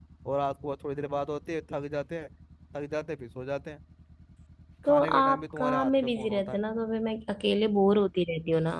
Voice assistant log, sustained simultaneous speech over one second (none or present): present